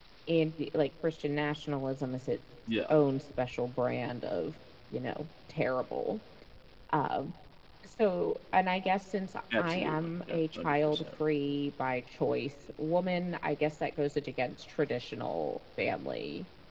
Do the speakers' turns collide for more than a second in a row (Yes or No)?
Yes